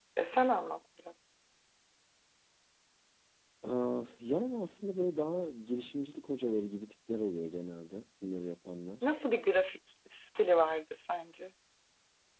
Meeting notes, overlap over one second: none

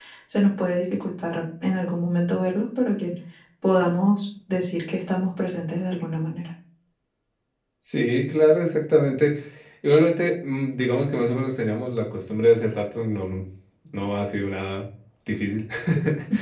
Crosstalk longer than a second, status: none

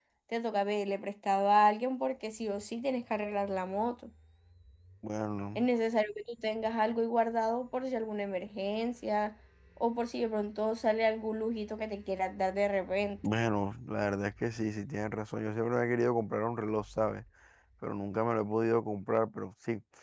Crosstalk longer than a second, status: none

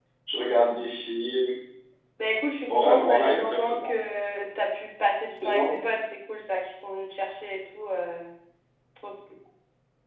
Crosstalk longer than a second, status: present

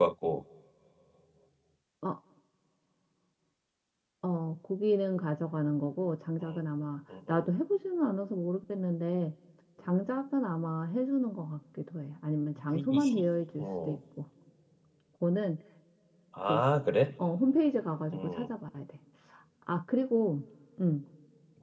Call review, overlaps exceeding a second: none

